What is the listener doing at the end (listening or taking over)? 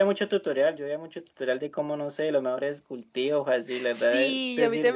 taking over